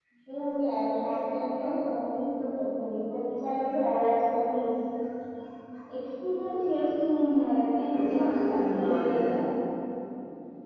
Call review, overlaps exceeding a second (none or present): present